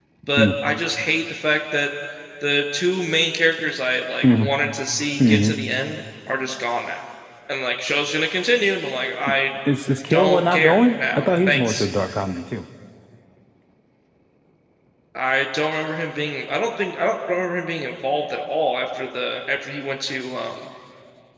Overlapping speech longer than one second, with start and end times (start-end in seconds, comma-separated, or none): 10.1-11.9